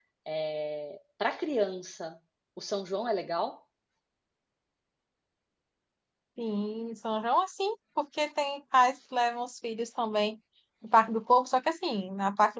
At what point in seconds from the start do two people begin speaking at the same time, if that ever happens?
none

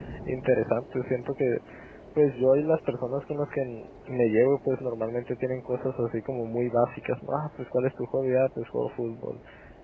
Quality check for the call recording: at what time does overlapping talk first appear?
none

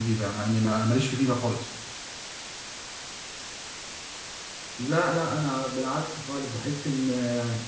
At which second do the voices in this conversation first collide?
none

